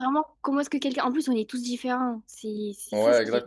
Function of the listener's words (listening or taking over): taking over